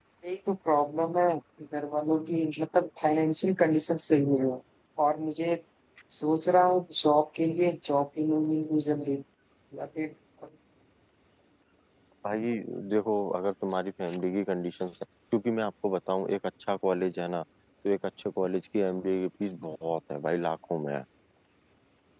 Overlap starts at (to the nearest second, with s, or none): none